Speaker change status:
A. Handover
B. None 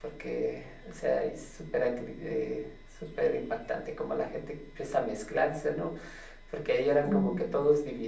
B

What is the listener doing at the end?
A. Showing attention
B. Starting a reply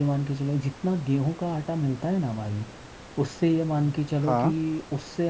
A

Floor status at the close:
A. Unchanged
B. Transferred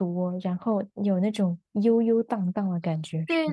B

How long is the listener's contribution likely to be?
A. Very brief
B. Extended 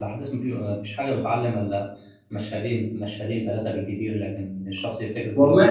B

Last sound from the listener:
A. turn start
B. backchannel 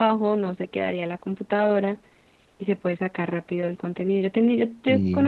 B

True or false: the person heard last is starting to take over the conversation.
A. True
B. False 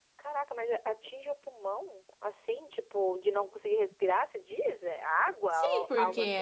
A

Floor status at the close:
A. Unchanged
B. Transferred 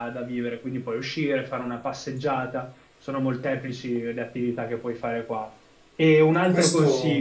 A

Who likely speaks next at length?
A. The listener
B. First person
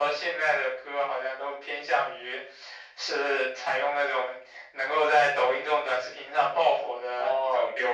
A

